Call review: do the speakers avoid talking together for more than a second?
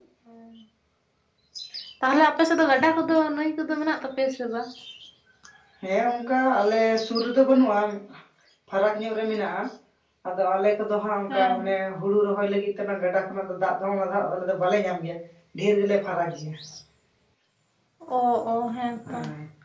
Yes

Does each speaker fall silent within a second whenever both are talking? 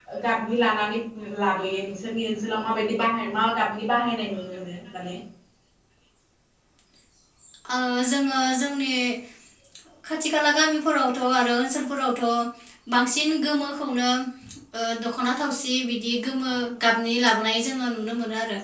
Yes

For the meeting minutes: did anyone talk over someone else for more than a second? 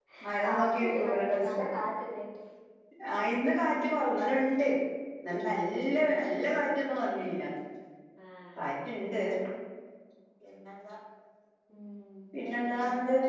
Yes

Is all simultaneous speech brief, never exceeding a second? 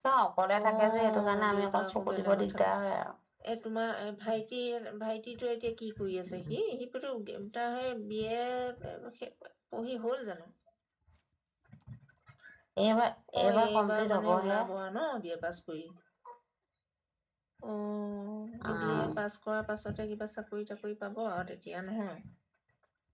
No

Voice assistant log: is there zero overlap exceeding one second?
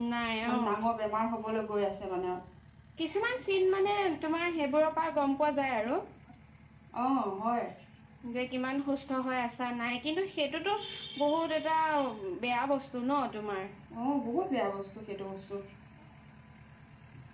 Yes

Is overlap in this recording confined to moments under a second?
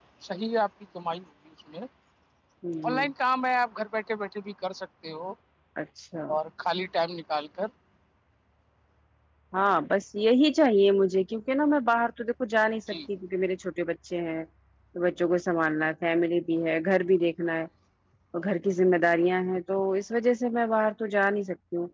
Yes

